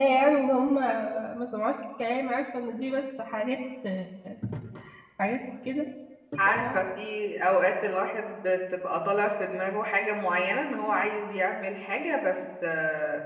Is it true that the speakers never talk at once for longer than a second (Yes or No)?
Yes